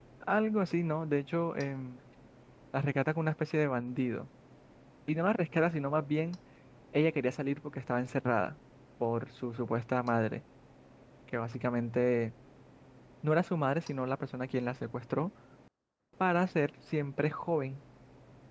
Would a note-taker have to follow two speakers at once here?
No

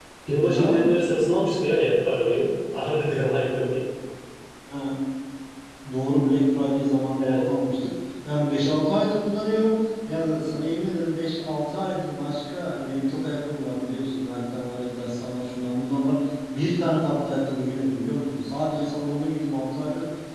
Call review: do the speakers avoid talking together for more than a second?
Yes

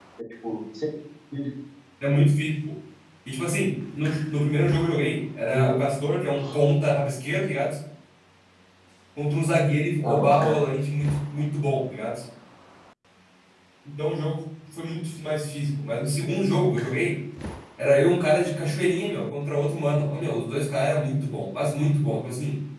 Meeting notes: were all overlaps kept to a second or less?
Yes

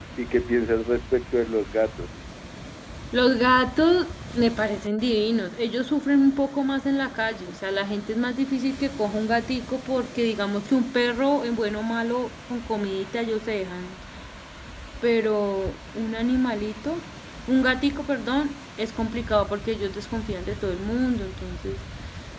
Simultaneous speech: No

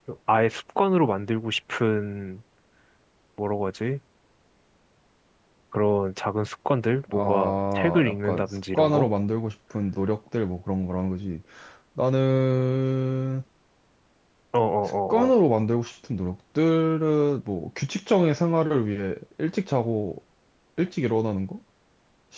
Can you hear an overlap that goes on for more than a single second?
Yes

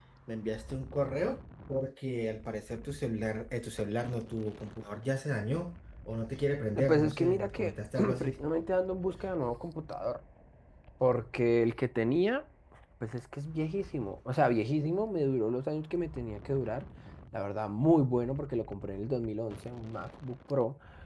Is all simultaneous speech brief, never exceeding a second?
No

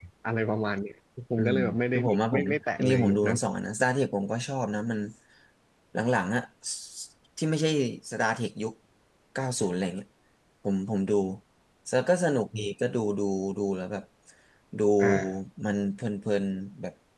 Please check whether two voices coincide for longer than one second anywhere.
Yes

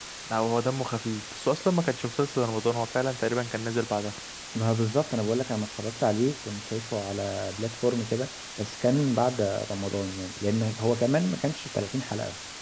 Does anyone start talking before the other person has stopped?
No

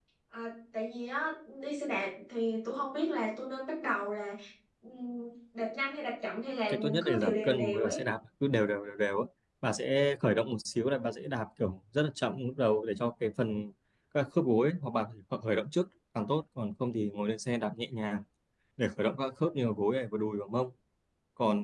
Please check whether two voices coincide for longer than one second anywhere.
Yes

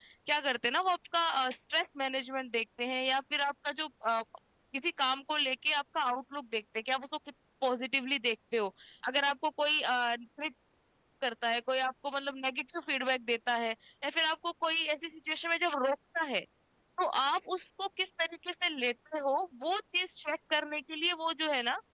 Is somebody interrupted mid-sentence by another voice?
No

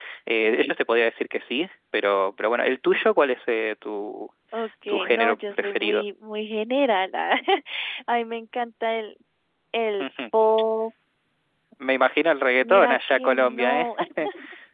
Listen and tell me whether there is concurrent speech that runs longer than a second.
Yes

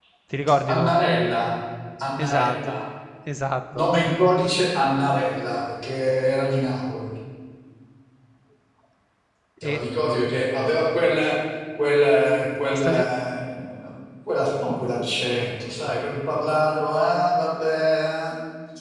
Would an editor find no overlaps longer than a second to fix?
Yes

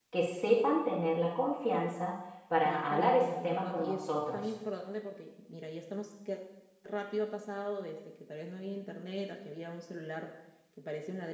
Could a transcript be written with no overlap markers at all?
No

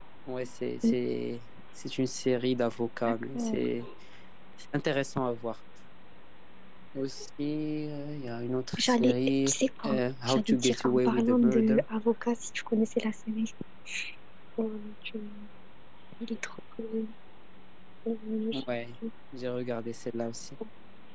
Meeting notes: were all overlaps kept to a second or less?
No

